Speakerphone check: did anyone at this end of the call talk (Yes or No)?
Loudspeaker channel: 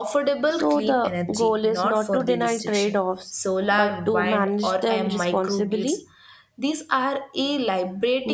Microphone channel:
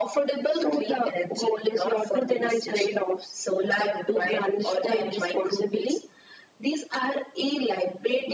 No